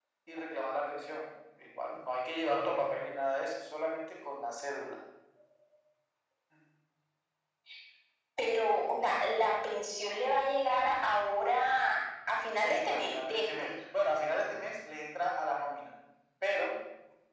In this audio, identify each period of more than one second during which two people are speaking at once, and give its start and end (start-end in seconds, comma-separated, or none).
12.5-13.7